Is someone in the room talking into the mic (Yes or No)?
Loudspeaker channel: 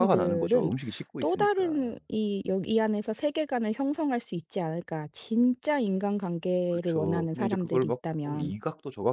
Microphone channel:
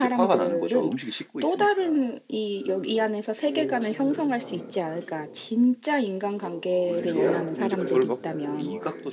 Yes